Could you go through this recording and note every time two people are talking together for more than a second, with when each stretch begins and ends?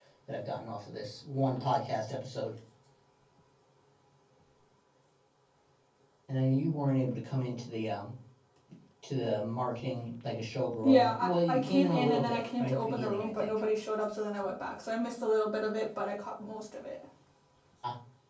10.8-13.5

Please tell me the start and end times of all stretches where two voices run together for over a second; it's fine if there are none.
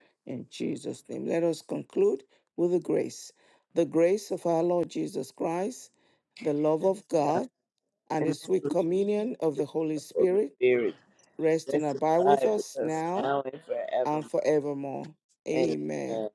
11.7-13.3

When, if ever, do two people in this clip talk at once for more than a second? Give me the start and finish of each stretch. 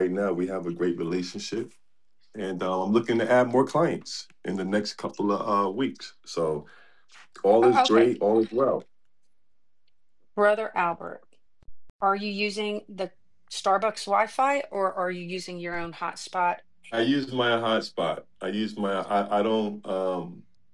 none

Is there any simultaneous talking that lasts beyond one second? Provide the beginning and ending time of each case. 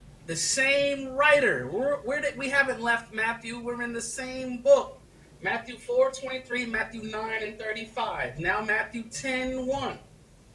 none

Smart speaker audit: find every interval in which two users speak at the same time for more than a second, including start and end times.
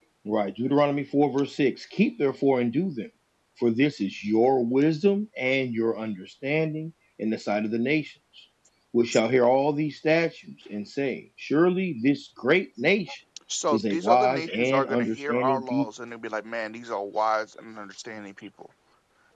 13.7-15.9

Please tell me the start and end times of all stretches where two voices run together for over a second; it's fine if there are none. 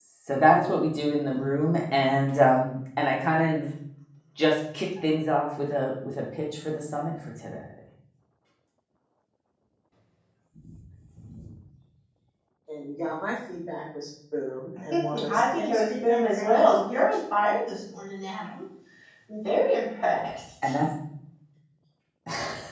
15.1-17.0

